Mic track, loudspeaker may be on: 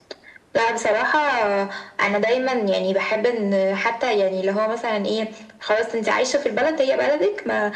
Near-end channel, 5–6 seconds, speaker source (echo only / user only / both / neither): echo only